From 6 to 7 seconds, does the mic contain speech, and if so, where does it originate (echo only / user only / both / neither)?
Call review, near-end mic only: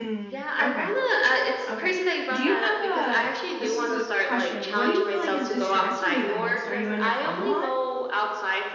both